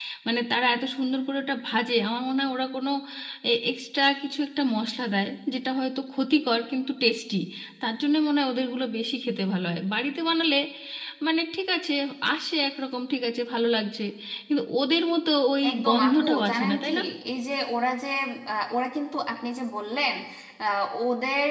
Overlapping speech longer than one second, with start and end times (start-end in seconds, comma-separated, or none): 15.7-16.9